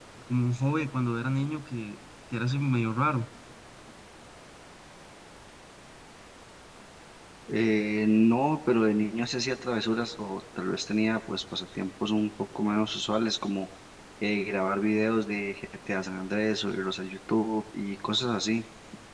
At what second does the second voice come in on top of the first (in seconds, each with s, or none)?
none